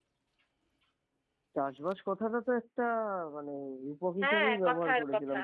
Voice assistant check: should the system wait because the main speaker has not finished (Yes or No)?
No